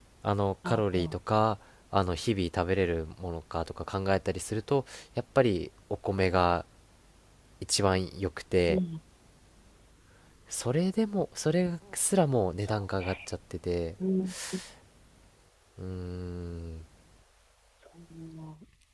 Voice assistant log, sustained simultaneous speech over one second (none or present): none